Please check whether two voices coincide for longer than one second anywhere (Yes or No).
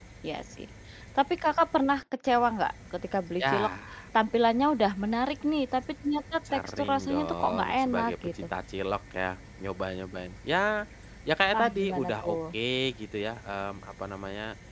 Yes